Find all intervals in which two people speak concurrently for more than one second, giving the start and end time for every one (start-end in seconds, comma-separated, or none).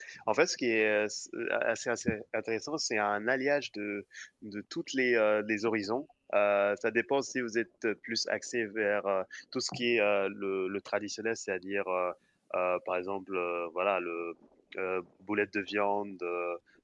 none